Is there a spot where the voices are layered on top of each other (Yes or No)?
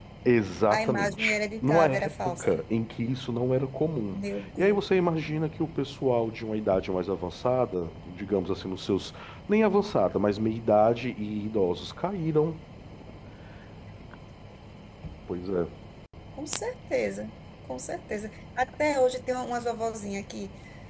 Yes